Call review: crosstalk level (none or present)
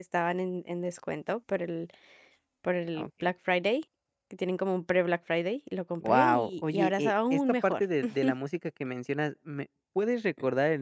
present